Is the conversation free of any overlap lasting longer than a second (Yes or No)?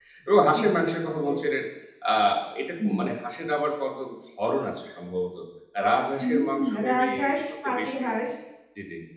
No